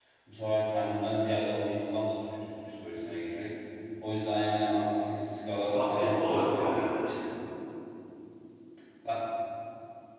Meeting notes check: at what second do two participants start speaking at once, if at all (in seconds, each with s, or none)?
5.6 s